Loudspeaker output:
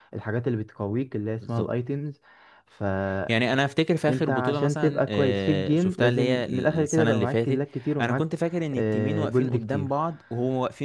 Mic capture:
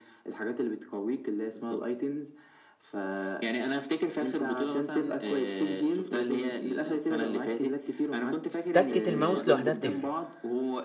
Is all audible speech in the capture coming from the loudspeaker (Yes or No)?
No